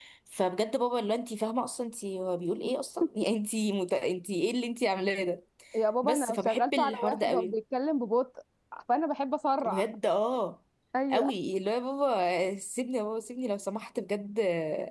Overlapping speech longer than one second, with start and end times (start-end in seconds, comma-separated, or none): 6.0-7.6